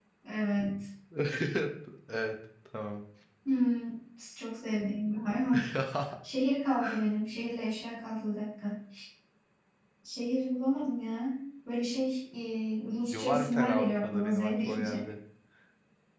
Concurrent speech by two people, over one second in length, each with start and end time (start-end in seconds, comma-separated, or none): 13.1-15.0